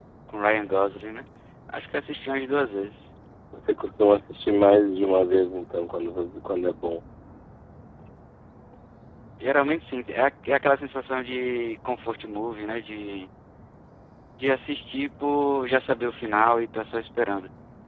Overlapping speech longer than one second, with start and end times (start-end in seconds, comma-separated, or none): none